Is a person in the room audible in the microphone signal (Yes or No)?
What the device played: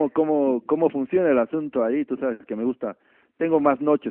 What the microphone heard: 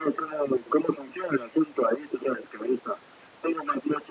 No